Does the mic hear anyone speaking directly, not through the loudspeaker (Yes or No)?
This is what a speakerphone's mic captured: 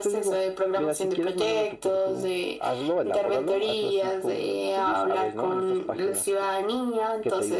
No